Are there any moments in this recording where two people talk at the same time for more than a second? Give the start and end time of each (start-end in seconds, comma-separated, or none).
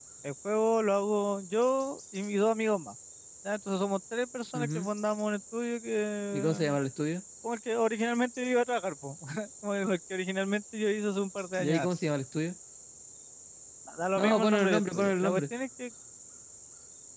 14.1-15.4